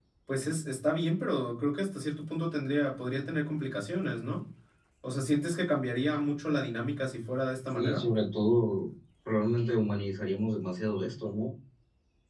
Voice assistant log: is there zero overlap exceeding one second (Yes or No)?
Yes